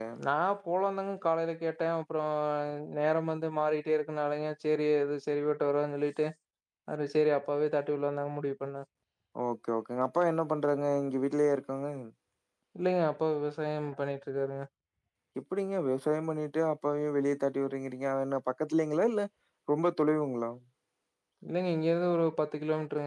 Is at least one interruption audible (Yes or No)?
No